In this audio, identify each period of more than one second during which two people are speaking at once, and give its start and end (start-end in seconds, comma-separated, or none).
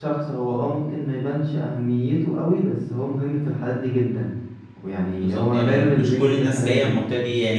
5.2-6.9